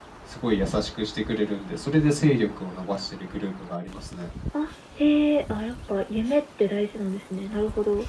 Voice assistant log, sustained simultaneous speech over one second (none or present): none